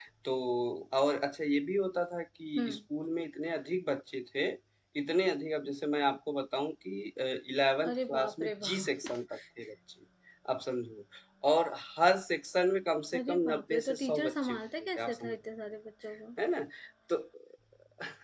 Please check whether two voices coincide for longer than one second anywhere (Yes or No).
Yes